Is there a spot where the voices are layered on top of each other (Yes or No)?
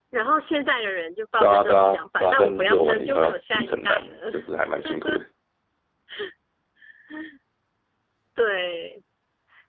Yes